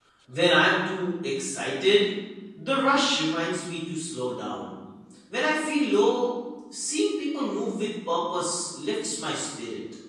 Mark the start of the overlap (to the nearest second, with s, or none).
none